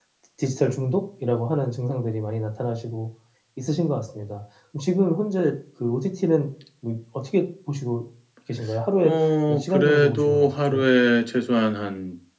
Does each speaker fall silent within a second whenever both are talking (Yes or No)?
No